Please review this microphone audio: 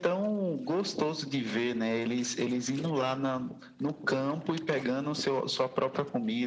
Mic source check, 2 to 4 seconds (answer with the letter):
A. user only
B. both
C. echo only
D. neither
C